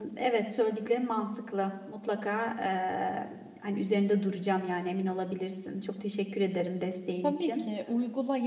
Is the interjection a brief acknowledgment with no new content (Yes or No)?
No